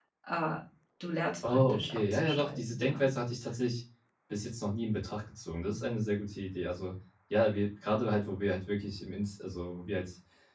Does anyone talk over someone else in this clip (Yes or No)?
Yes